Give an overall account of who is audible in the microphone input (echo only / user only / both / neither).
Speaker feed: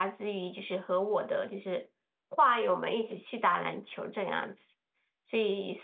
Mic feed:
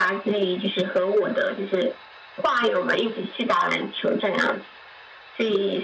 echo only